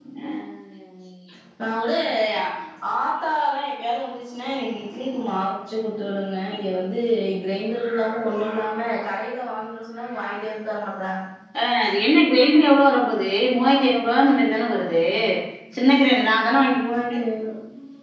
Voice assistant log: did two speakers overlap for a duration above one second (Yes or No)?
No